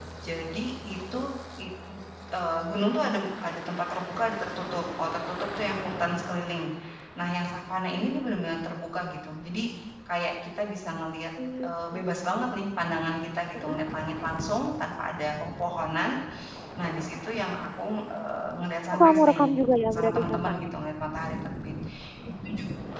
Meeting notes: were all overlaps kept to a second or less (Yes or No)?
No